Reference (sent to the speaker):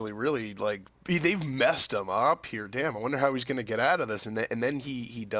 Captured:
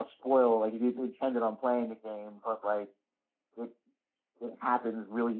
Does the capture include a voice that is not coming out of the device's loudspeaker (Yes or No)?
Yes